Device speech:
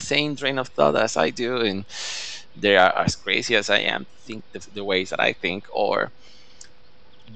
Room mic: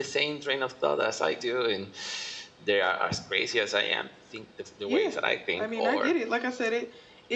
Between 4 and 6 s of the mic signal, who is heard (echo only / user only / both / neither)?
both